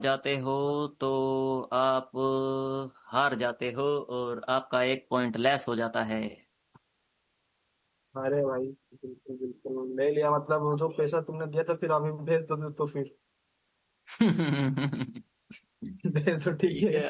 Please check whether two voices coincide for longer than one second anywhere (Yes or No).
No